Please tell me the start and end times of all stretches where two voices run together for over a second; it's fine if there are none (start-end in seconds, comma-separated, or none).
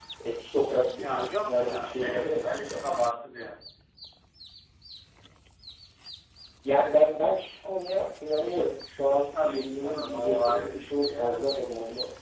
0.9-2.8, 9.4-11.6